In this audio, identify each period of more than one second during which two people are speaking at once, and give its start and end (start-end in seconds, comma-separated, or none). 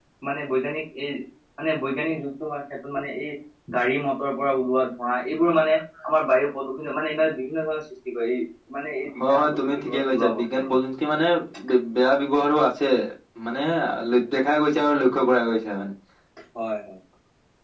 9.3-10.8